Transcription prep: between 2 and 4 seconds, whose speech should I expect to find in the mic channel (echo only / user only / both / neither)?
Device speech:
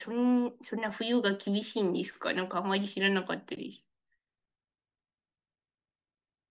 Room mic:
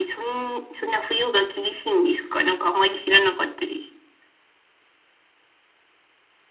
echo only